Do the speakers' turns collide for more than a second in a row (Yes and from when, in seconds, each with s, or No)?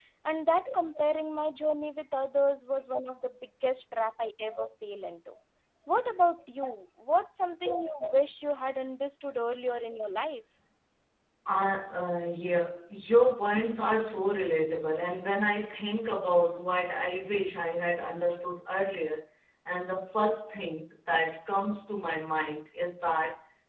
No